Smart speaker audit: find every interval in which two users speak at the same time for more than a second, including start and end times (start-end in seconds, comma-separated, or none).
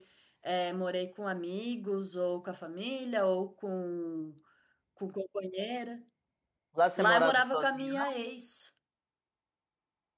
7.0-8.2